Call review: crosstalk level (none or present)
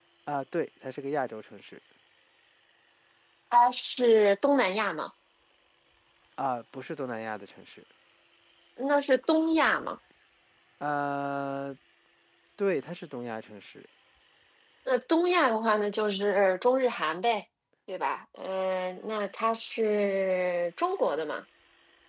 none